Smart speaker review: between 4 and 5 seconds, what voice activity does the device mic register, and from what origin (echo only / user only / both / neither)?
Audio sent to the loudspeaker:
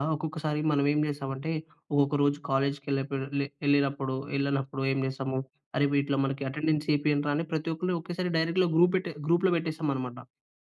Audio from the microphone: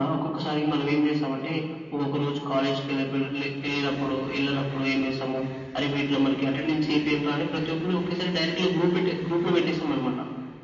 echo only